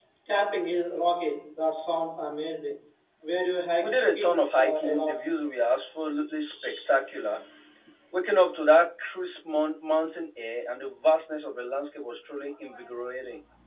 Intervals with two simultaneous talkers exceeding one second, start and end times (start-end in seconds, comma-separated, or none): 3.8-5.3